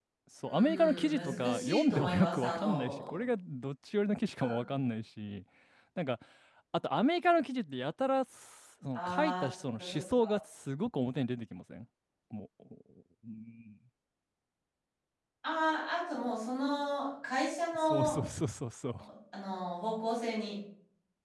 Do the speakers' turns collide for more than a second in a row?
Yes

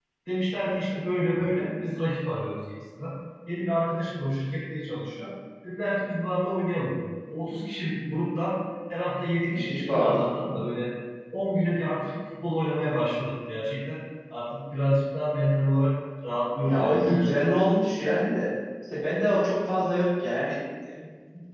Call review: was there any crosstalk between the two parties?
Yes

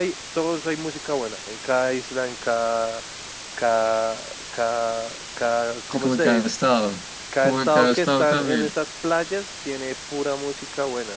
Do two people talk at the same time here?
Yes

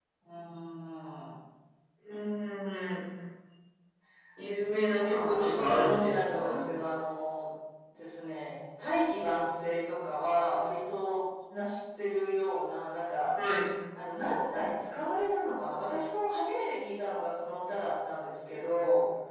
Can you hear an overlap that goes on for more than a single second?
Yes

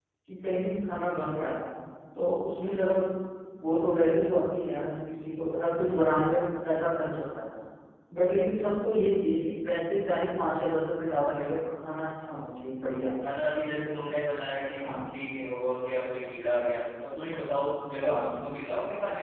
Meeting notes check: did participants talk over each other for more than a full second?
No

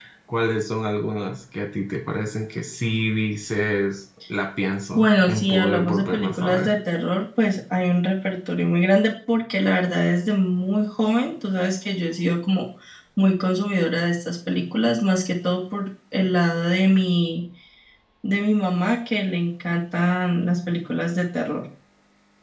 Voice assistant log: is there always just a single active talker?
No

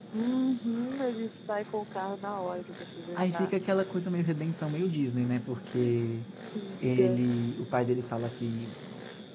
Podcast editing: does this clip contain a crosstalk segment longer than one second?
No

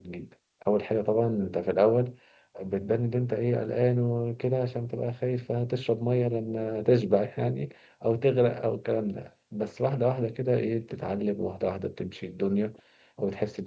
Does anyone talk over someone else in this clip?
No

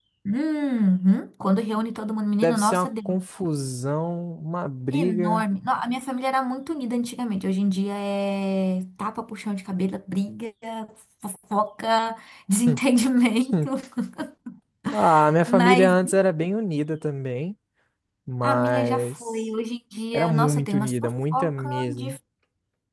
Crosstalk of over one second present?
Yes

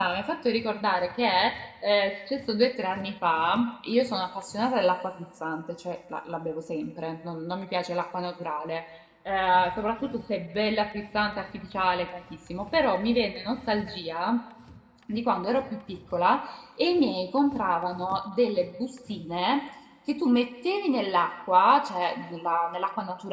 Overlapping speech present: No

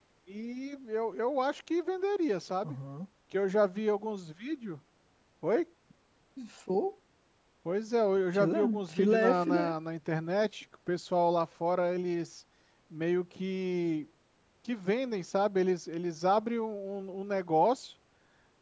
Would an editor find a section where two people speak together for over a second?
Yes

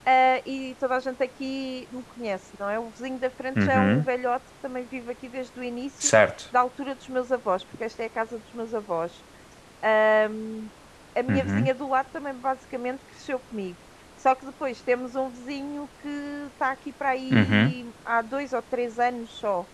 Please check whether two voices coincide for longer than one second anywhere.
No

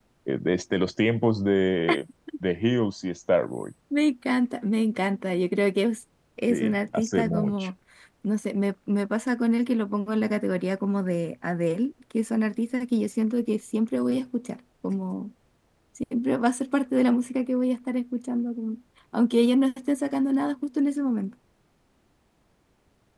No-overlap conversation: No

